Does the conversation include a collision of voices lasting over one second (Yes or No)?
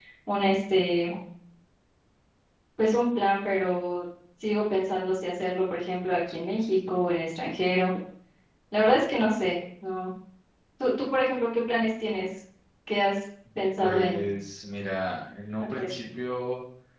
No